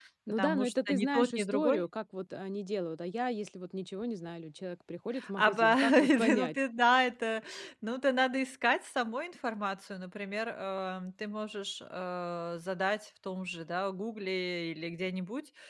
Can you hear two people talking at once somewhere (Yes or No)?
Yes